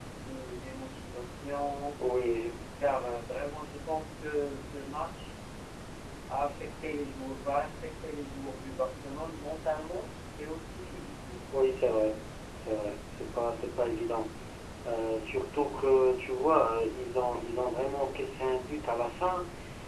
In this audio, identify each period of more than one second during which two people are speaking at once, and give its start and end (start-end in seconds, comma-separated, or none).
none